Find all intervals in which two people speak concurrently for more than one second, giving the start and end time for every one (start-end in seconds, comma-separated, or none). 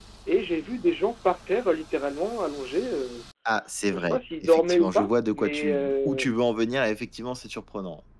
3.9-6.3